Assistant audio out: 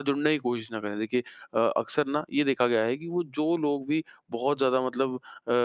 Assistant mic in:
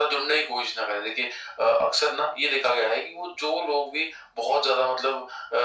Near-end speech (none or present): none